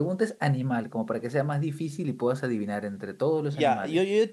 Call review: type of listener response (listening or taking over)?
taking over